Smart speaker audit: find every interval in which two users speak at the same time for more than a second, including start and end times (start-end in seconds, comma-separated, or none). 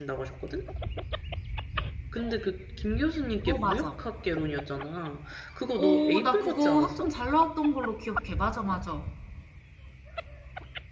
5.8-7.1